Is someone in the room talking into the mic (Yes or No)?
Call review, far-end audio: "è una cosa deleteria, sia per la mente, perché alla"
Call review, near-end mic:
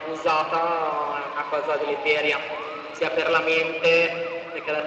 No